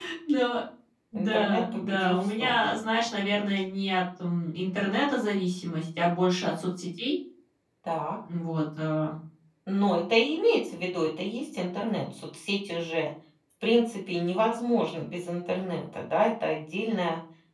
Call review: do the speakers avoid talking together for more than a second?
No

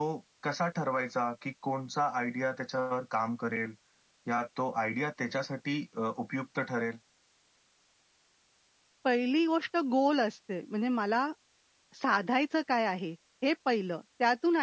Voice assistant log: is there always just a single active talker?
Yes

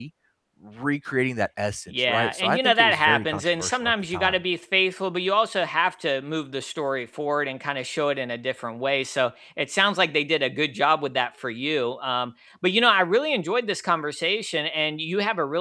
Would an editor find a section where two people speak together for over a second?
Yes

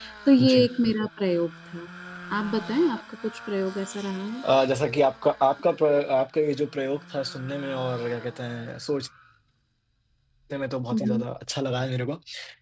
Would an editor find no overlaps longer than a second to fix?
Yes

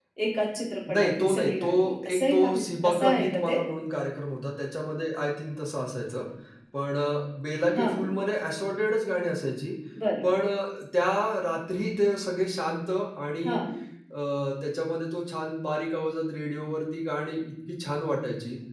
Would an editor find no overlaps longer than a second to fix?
No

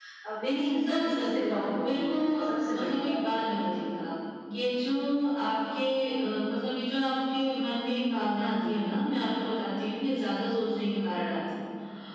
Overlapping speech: Yes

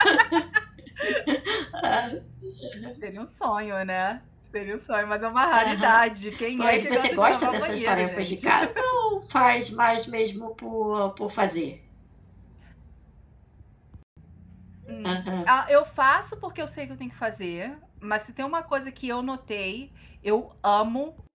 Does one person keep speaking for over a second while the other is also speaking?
Yes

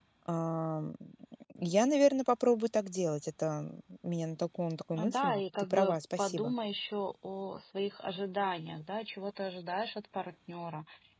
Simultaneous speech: Yes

